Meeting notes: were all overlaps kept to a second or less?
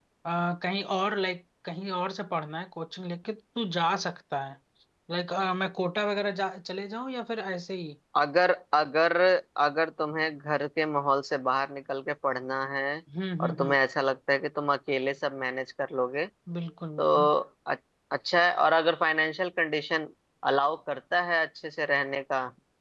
Yes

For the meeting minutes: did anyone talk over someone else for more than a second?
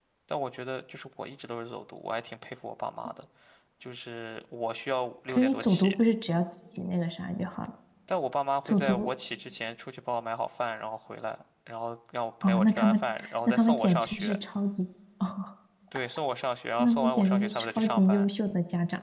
Yes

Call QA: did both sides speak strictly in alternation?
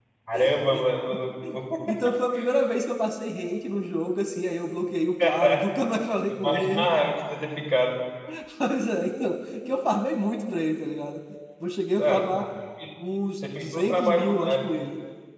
No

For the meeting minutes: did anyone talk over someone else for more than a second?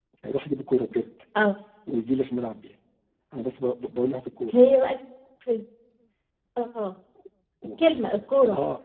No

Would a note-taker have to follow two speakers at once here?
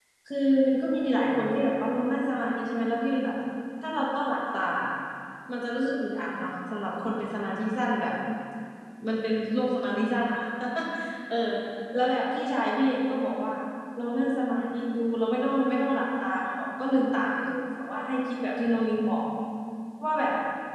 No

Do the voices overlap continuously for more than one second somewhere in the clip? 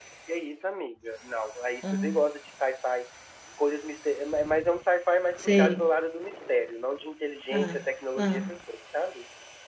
No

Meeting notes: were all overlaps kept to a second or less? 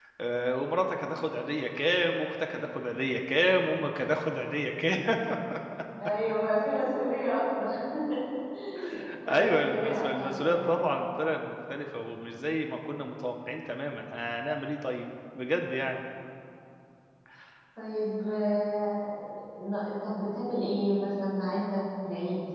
No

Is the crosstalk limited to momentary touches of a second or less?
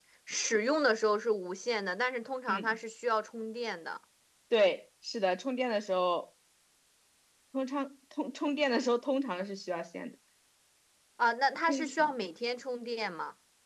Yes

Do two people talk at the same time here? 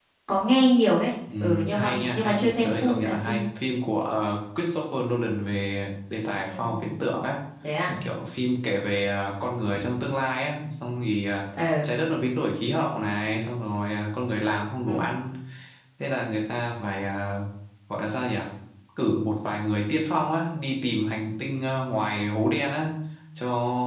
Yes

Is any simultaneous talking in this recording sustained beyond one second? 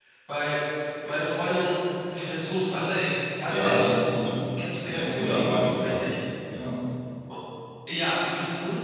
Yes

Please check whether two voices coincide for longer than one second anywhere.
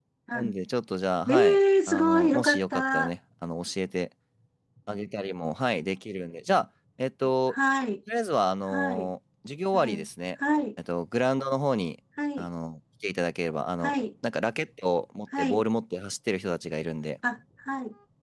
Yes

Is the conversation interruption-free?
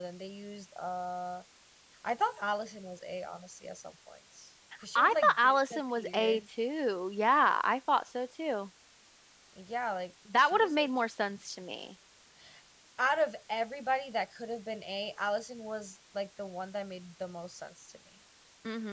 No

